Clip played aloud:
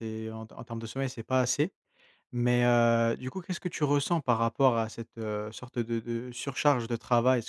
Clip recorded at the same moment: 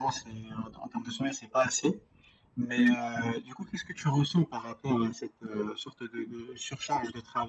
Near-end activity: none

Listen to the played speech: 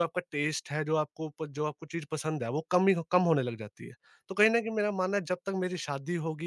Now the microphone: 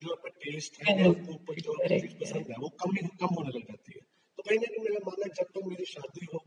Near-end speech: present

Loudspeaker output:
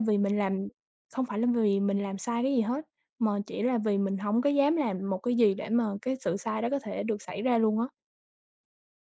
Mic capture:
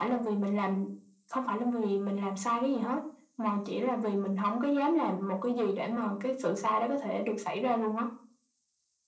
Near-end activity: none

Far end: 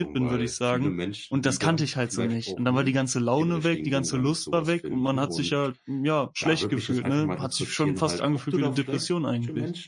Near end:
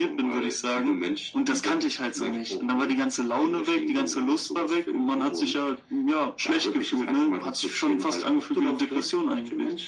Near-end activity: none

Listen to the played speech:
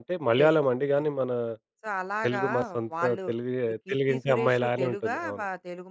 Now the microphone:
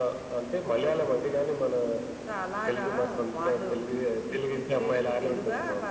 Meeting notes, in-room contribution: none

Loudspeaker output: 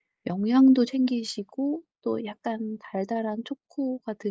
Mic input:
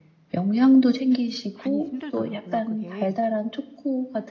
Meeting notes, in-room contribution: present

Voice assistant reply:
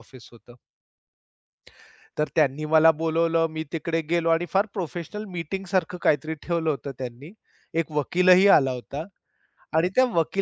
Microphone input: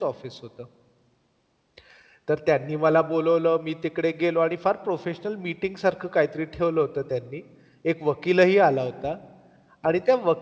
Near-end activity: none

